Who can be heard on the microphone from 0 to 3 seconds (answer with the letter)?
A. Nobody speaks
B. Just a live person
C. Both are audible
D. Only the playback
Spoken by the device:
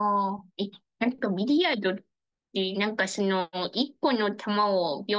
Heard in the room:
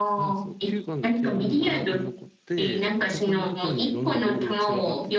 C